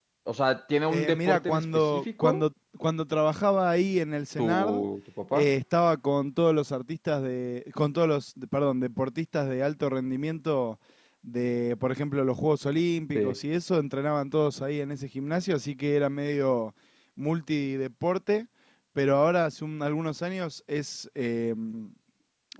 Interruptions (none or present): present